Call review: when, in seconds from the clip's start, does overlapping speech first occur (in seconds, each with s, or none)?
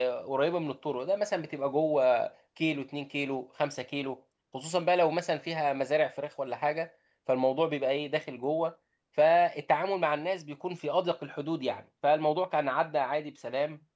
none